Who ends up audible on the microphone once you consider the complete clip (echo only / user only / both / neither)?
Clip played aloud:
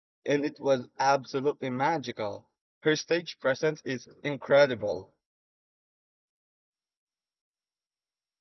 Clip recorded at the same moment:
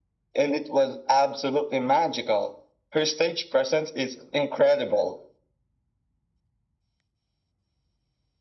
echo only